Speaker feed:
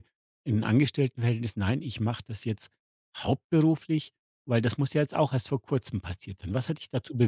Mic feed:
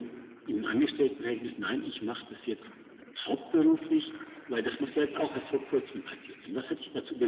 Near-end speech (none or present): none